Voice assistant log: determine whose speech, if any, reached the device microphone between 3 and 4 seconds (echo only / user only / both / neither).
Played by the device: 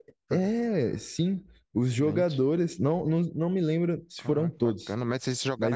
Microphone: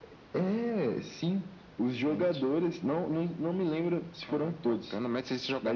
echo only